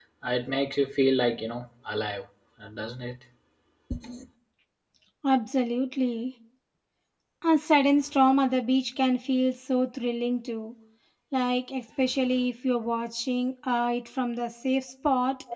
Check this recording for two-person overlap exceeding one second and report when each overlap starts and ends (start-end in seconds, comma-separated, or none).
none